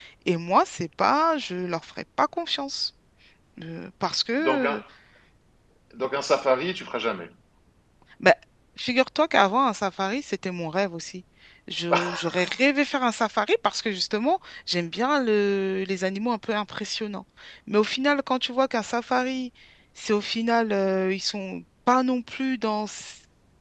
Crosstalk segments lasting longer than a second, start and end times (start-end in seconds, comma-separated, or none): none